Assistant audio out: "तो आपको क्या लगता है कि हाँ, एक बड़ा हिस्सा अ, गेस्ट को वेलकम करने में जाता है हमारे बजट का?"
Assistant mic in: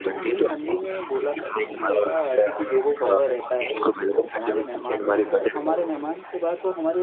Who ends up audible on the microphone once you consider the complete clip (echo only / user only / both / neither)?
both